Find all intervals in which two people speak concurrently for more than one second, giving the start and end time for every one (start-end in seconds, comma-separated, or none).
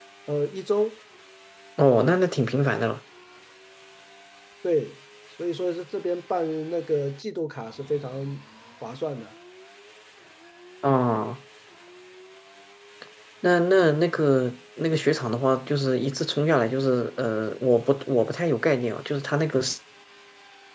none